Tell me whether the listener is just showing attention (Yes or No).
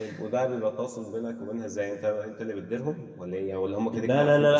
No